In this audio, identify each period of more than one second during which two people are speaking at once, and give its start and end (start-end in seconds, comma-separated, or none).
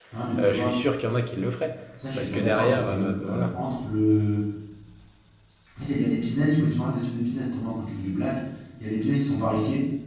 2.1-3.5